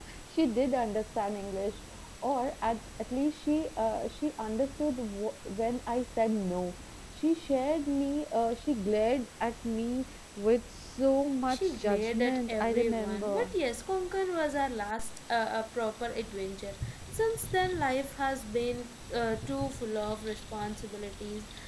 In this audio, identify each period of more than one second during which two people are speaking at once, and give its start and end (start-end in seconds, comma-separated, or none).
11.5-13.5